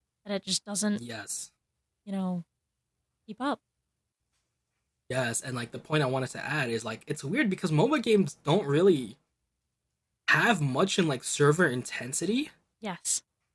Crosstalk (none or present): none